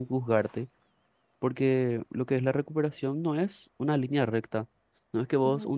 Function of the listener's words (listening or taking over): listening